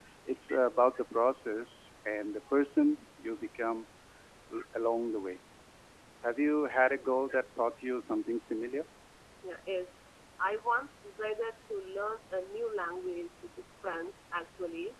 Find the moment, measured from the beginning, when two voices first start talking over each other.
none

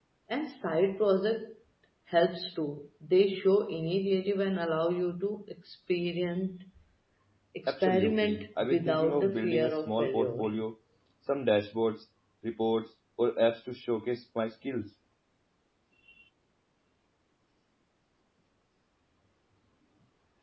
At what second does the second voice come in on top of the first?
8 s

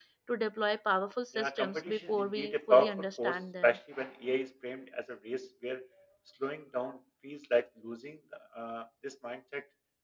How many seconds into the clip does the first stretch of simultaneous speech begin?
1 s

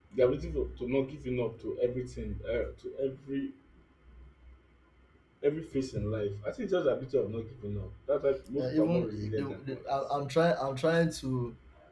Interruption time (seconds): 9 s

